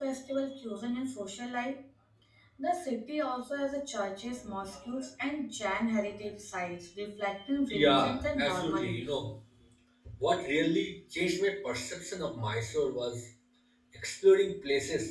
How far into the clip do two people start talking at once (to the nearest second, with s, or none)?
8 s